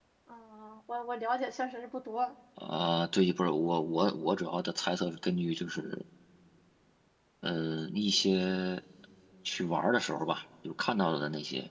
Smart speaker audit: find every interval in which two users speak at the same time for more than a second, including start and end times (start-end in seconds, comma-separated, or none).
none